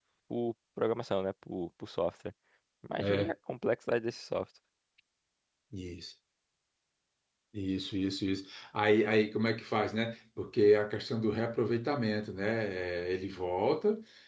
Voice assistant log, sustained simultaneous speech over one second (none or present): none